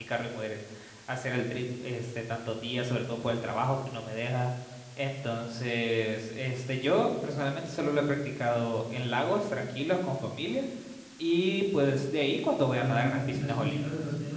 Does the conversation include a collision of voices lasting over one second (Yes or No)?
Yes